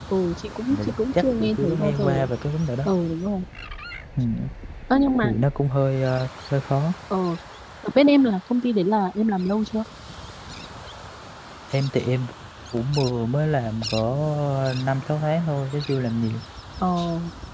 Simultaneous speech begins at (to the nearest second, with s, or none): 1 s